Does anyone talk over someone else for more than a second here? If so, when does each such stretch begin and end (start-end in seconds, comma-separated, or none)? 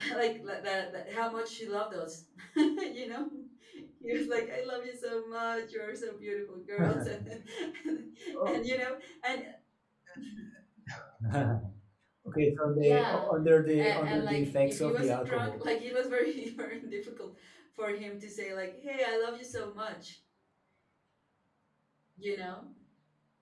13.8-15.6